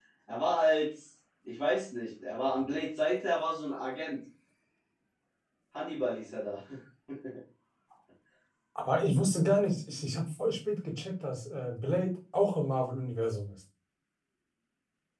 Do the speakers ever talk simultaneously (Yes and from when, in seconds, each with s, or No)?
No